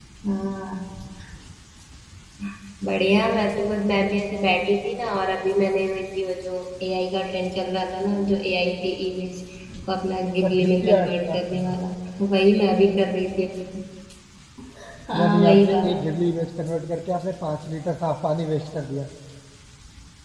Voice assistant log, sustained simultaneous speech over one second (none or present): present